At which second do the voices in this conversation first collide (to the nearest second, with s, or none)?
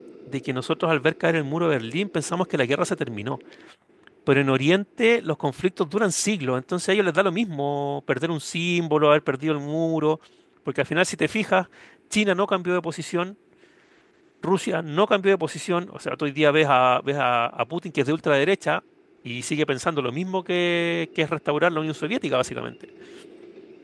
none